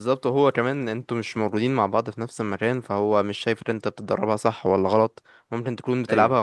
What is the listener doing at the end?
listening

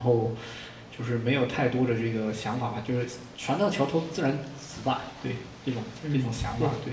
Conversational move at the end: taking over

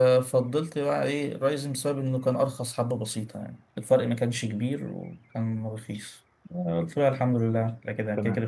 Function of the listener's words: listening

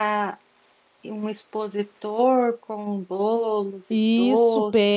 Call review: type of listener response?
taking over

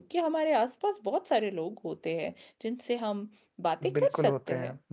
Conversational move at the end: taking over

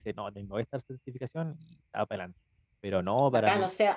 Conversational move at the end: taking over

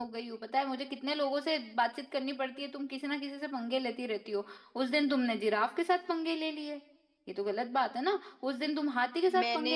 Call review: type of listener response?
listening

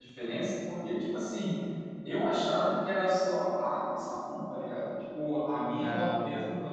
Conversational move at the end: listening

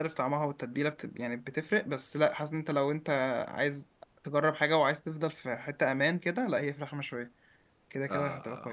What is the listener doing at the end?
taking over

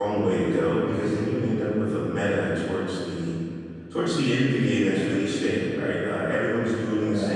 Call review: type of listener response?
listening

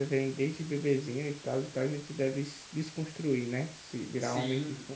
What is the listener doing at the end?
taking over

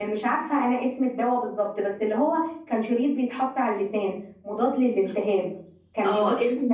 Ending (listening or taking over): taking over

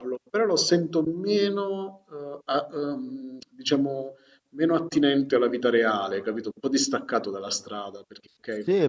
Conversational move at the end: taking over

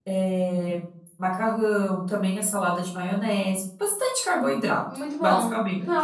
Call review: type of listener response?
taking over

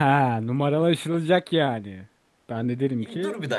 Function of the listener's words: taking over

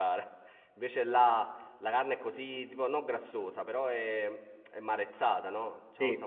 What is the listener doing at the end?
listening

